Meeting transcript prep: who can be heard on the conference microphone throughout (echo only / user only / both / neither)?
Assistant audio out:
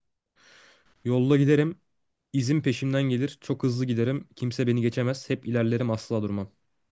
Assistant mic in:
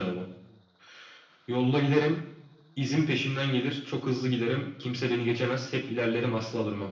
echo only